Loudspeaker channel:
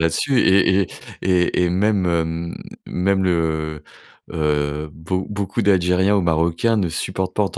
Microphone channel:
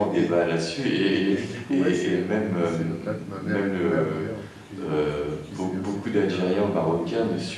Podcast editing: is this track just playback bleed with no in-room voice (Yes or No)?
No